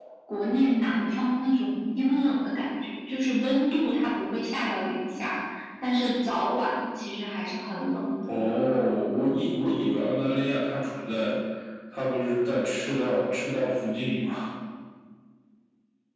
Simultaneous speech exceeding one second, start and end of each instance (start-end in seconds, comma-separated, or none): none